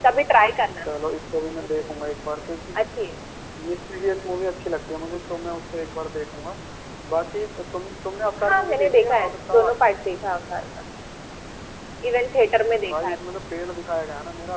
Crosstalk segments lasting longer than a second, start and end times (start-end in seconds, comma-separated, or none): 8.5-9.7